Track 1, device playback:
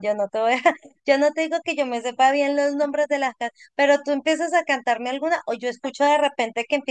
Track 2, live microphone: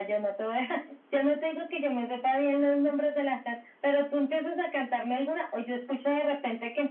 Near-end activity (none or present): none